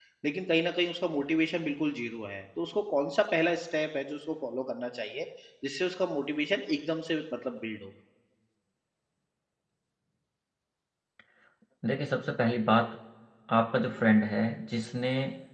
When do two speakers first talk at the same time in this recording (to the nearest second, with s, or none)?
none